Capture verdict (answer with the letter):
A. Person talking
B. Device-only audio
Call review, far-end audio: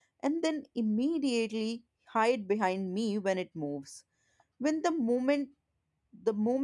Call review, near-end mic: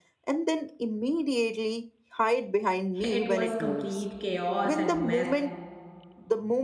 A